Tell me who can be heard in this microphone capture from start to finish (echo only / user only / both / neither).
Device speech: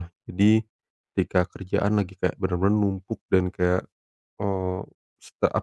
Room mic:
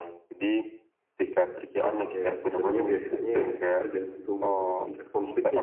both